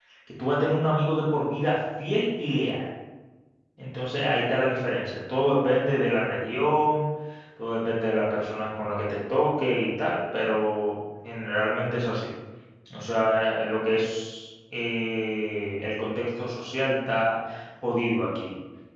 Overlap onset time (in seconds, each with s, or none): none